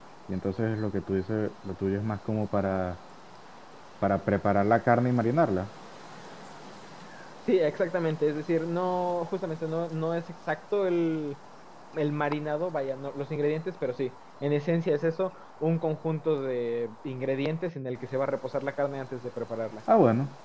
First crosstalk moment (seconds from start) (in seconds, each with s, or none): none